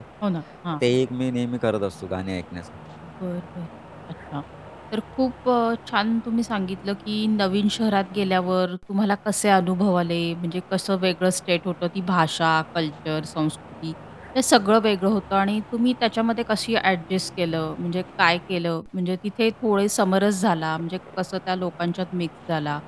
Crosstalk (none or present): none